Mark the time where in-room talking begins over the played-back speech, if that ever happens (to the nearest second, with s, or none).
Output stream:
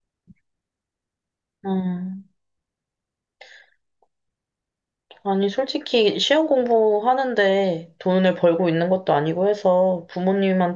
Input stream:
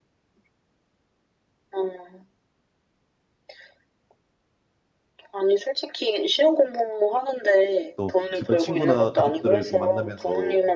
8 s